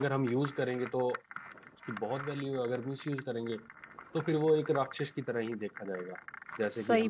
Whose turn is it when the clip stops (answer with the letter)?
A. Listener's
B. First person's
A